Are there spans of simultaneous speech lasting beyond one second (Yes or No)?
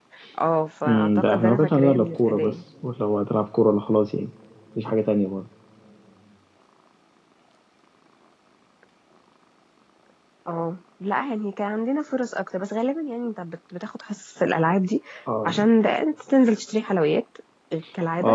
Yes